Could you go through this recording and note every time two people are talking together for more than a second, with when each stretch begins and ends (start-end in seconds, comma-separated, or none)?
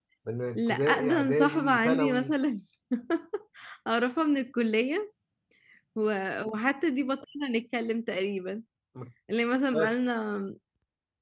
0.6-2.3